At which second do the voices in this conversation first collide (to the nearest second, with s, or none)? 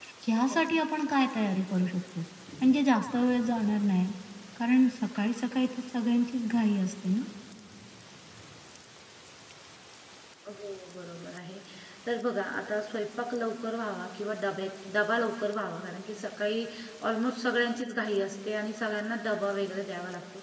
none